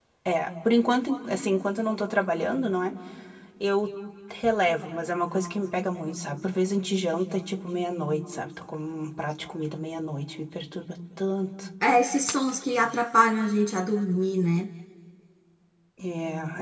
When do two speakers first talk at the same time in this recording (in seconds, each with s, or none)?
none